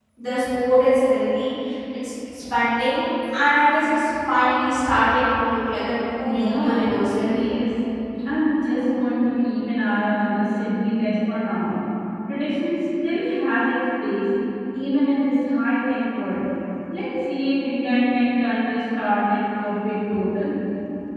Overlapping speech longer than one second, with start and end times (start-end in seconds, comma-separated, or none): 6.2-7.5